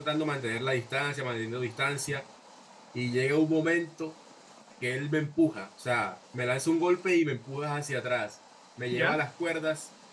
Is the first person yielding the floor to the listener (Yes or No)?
No